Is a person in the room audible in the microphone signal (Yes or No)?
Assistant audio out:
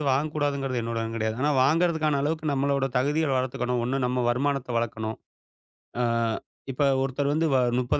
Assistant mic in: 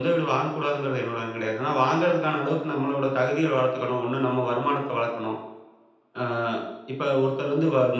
No